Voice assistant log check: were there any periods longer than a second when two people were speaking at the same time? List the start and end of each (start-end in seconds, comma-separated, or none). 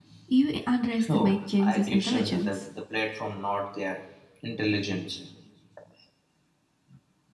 1.1-2.6